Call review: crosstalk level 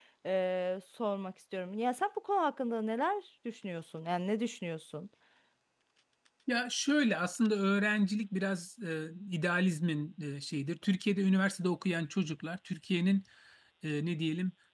none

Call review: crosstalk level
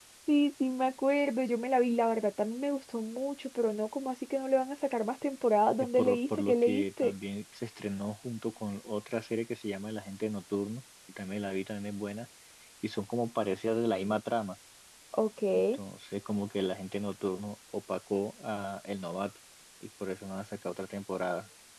present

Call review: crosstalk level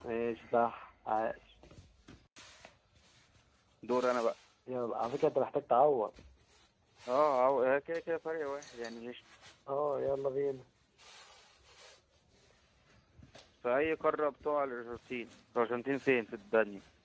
none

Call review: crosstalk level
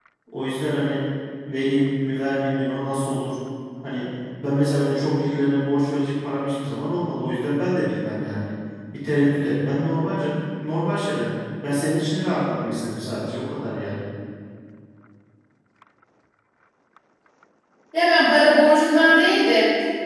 none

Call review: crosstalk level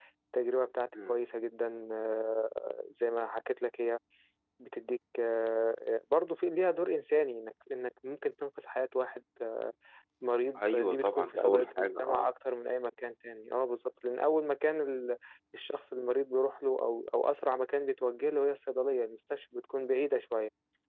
present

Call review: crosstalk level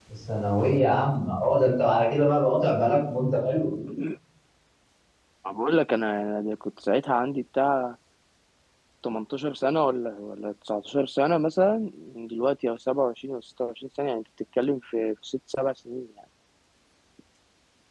none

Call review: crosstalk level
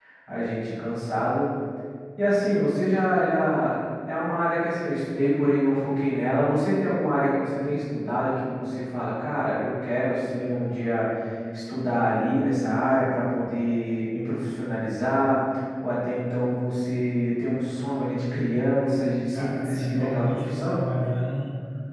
present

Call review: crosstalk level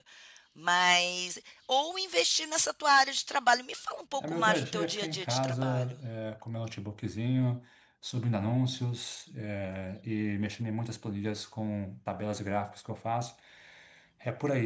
present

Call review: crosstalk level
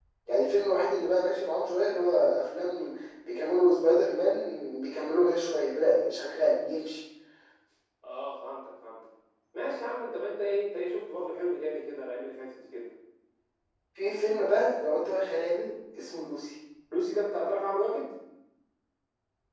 none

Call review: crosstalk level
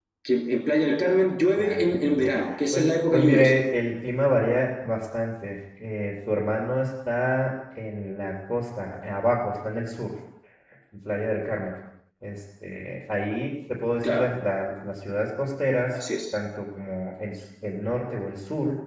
present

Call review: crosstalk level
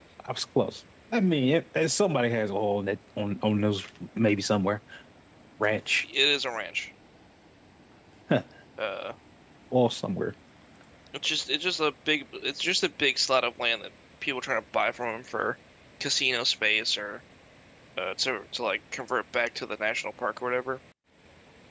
none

